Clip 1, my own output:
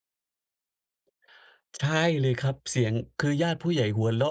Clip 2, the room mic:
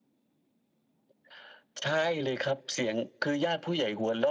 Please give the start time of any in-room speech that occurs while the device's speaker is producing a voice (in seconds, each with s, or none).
none